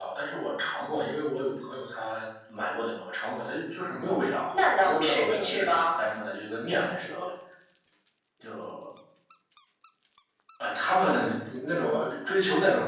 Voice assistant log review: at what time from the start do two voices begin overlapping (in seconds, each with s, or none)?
4.5 s